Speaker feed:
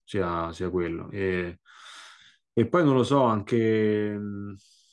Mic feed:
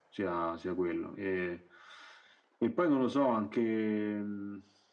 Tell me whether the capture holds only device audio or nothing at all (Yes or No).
Yes